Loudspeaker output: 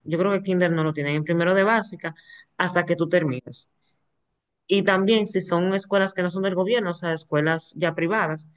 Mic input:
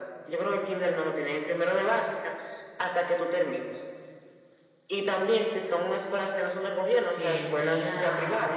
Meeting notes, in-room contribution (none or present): present